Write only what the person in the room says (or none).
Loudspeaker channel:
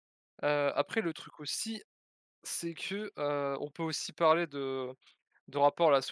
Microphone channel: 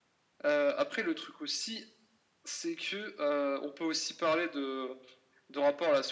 none